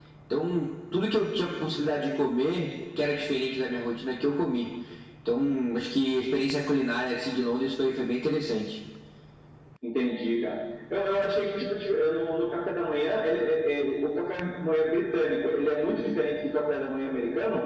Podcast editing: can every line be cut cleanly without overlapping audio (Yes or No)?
Yes